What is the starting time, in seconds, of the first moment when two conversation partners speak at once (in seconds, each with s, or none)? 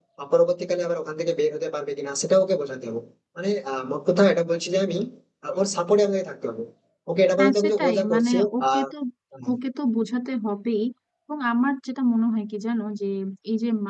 7.4 s